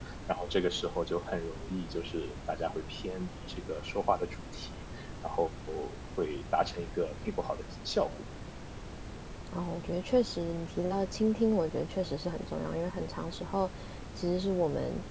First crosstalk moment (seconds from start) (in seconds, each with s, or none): none